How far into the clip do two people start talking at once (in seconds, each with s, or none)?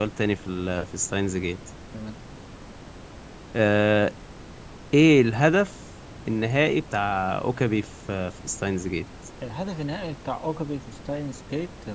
none